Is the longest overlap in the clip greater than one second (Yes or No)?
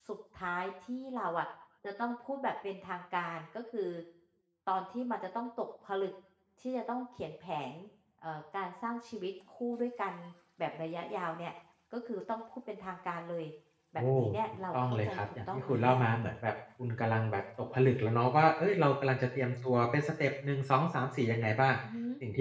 Yes